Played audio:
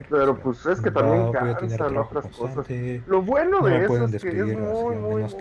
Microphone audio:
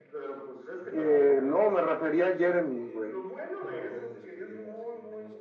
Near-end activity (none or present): present